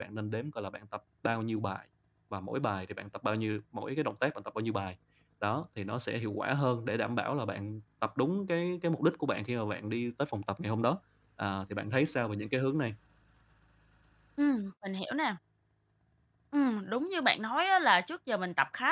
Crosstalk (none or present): none